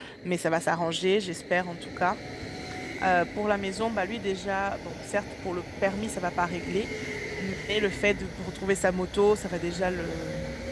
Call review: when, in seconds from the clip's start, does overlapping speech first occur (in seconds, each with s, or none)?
none